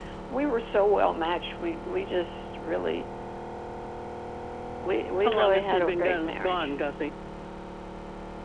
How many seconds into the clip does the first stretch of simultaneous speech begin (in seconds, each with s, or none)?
5.2 s